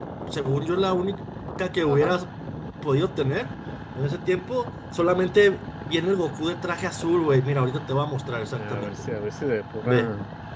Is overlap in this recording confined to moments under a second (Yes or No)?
Yes